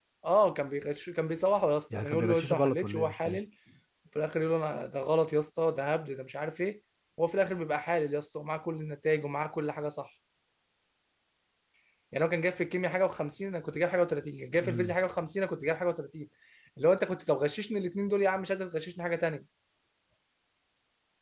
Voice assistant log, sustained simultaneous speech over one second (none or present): present